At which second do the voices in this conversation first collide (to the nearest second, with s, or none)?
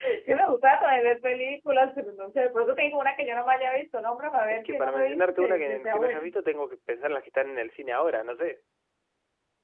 5 s